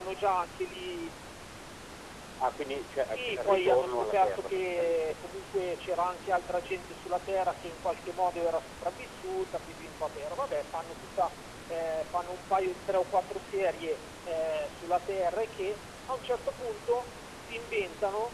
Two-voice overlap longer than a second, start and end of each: 3.0-5.2

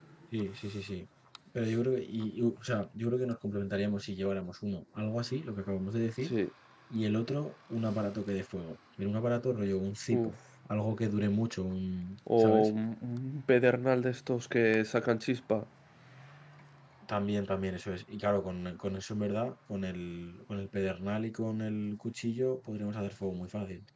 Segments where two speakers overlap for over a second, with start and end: none

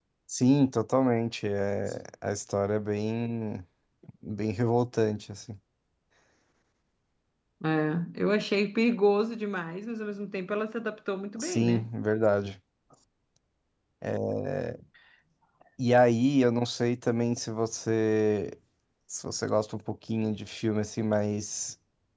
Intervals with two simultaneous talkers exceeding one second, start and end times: none

